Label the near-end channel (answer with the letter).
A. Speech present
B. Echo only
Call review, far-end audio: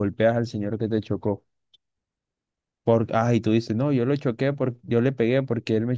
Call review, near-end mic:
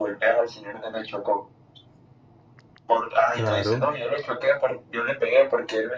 A